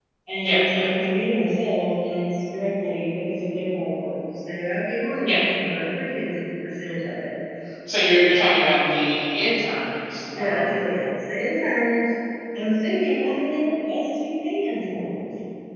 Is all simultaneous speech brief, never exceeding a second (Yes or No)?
Yes